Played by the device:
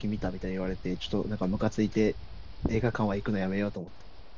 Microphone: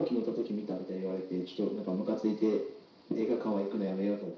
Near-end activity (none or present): none